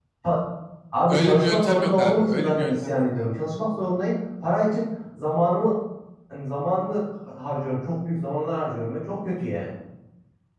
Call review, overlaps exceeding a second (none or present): present